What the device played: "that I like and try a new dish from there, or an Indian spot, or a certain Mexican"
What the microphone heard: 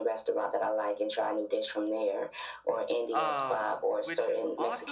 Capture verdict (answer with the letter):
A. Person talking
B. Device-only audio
A